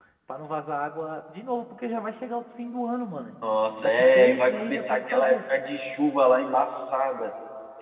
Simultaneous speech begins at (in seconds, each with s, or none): 3.8 s